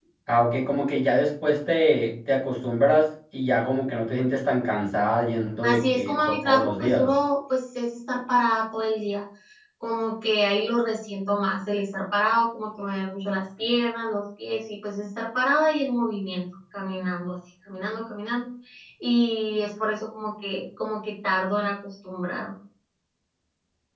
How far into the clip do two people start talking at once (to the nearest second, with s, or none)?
6 s